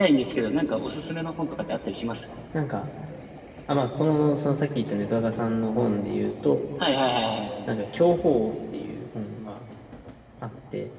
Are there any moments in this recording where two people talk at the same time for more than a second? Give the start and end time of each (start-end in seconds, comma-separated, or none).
none